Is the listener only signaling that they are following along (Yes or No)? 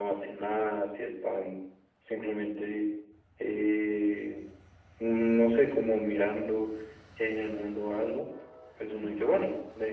Yes